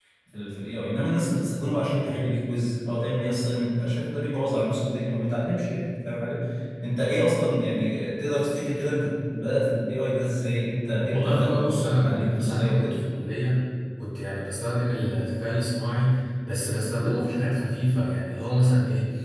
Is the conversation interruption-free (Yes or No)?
No